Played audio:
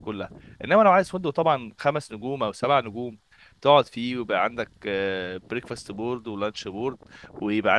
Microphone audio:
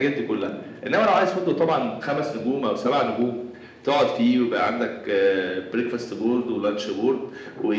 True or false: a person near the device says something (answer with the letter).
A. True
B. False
B